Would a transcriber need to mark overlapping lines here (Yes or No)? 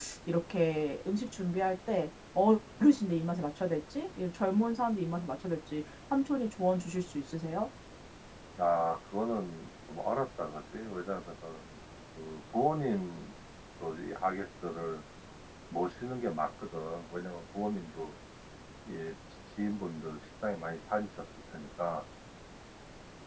No